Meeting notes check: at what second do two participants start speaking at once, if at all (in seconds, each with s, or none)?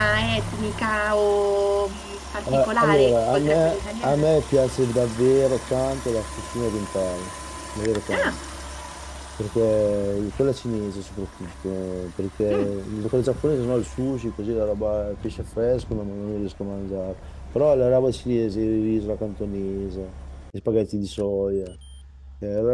2.5 s